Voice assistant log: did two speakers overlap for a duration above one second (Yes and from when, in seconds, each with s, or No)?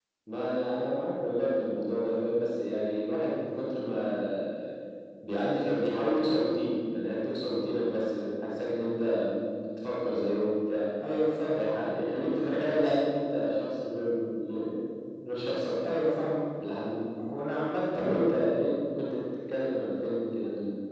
No